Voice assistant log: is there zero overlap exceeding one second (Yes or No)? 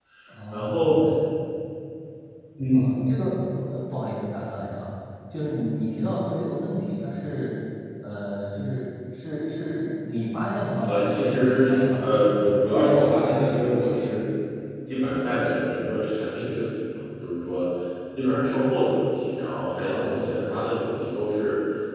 No